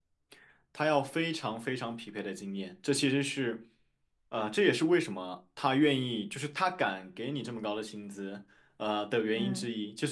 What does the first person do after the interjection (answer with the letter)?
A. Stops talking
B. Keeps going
B